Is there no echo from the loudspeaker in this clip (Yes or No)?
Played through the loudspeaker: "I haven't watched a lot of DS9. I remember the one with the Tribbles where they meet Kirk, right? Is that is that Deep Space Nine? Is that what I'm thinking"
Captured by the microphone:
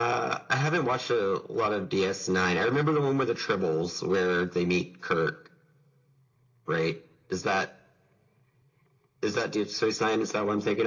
No